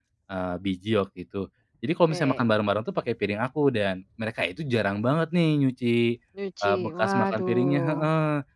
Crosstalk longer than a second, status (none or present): present